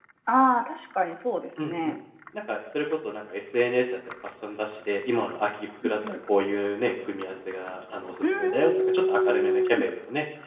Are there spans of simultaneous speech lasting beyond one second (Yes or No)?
Yes